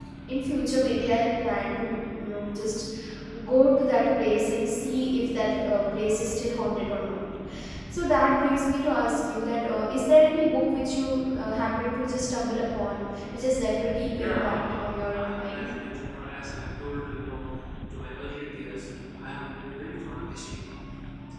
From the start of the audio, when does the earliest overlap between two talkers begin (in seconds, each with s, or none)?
14.2 s